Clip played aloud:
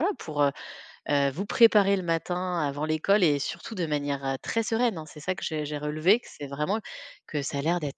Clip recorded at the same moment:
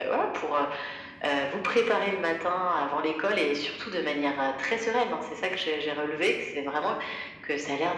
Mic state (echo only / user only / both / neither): echo only